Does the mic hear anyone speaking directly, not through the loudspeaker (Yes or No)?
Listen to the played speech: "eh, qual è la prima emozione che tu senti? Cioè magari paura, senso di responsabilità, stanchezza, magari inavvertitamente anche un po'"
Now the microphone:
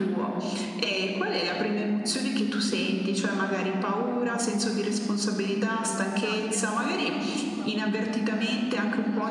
Yes